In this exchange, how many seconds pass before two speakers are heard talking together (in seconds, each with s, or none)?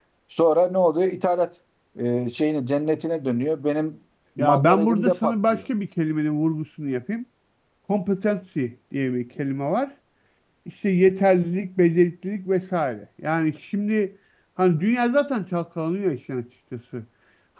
4.4 s